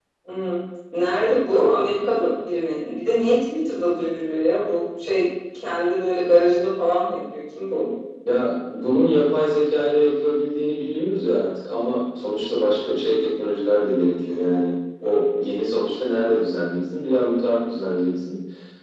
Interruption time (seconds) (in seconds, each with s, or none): none